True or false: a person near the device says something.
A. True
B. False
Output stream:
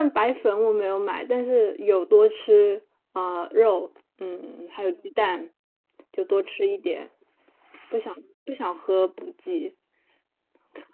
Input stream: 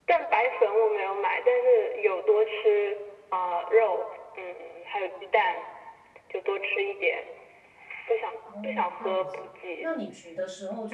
A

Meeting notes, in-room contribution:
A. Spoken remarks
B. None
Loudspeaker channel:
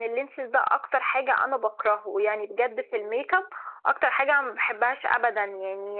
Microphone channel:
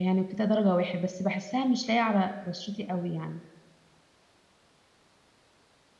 A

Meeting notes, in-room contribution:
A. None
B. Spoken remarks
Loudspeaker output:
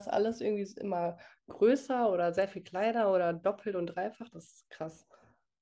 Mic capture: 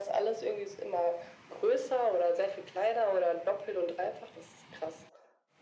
A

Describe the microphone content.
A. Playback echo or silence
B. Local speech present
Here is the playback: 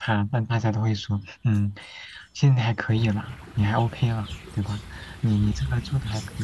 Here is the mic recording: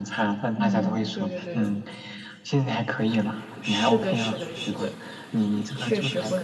B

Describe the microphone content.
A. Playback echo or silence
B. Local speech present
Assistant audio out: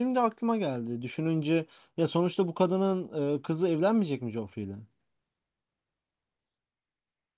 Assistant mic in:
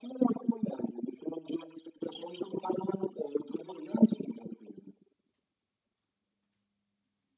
A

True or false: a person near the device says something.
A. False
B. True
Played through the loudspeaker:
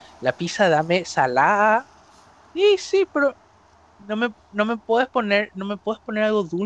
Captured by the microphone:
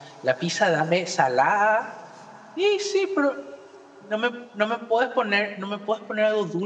A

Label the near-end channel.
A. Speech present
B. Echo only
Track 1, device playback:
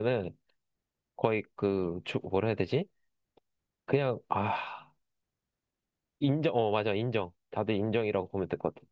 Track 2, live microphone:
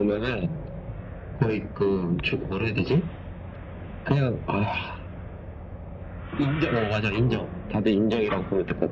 B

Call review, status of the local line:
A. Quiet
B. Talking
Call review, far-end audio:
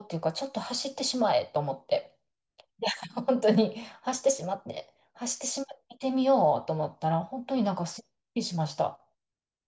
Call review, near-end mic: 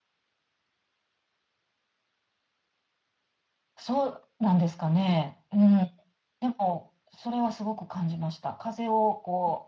B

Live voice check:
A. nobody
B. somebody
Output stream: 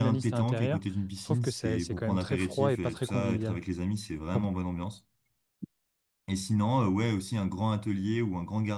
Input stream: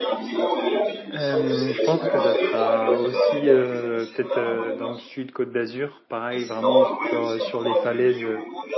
B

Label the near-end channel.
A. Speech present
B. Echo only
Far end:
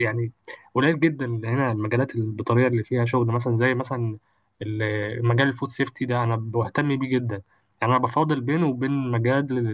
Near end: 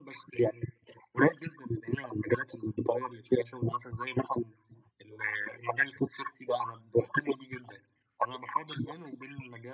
B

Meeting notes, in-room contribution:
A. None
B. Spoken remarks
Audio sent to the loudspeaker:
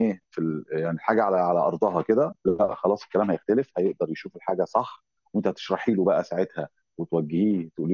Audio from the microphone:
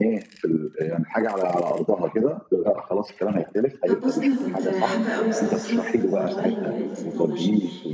B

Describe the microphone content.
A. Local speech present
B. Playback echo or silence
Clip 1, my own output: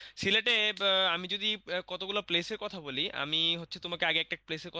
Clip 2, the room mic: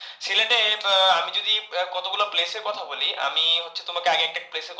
B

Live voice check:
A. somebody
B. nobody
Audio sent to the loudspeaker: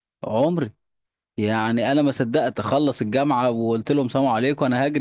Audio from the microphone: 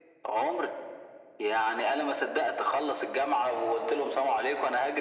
B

